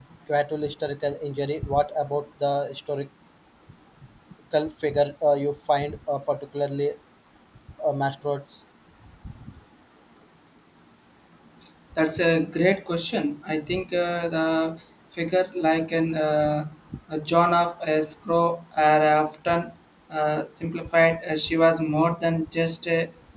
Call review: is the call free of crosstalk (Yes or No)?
Yes